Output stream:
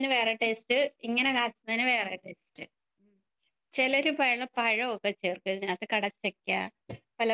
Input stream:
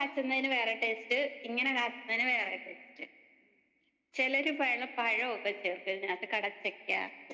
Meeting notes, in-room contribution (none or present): none